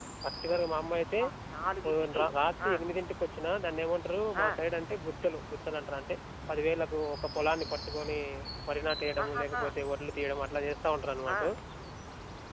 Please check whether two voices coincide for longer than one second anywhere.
No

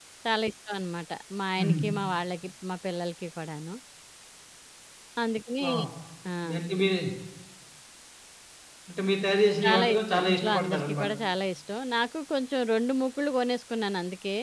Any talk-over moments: Yes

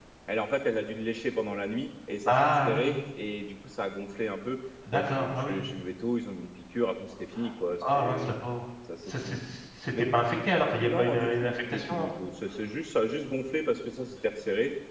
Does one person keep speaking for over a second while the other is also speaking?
Yes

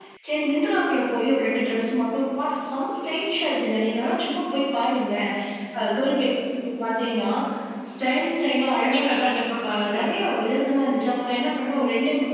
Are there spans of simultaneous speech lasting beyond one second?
Yes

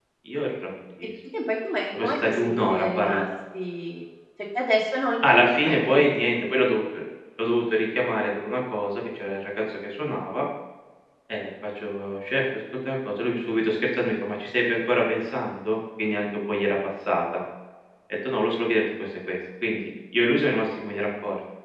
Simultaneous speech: Yes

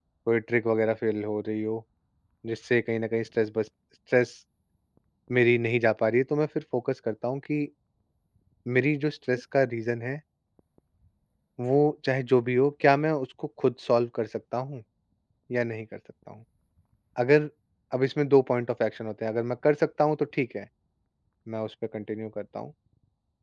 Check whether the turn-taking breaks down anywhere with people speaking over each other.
No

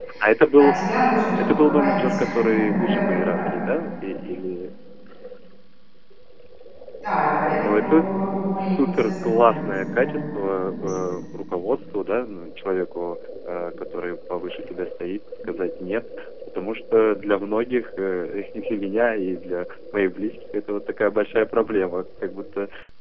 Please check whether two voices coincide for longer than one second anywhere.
Yes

